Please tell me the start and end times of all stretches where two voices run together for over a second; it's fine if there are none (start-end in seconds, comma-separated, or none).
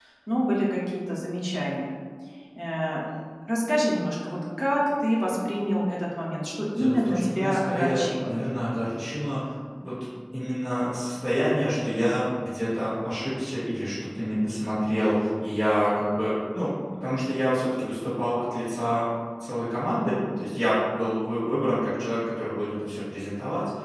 6.8-8.3